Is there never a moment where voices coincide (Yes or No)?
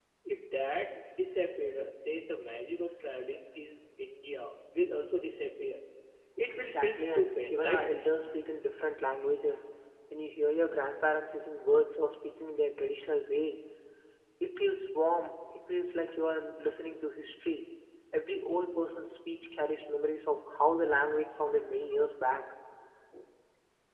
No